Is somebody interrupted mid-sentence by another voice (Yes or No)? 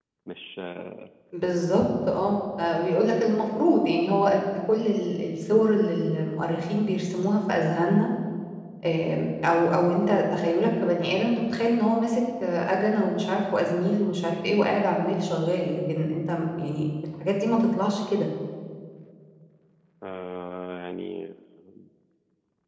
No